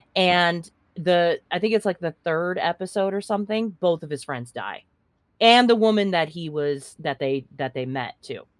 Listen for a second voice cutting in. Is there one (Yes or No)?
No